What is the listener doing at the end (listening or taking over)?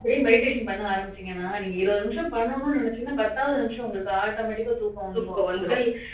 listening